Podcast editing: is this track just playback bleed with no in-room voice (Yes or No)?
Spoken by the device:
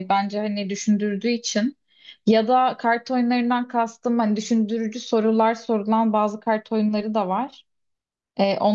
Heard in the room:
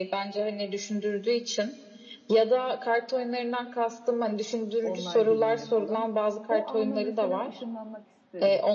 No